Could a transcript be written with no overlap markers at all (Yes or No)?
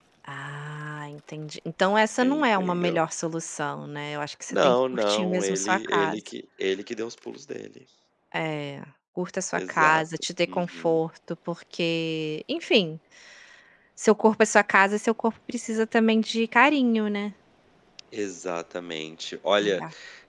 No